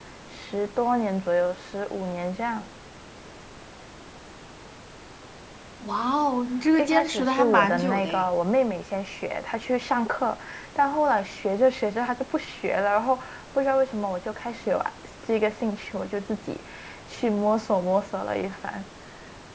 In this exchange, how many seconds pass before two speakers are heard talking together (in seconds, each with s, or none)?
6.8 s